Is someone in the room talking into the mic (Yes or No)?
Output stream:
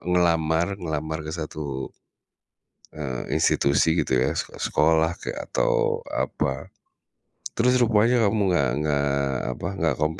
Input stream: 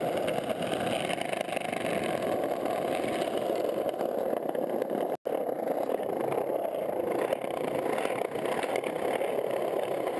No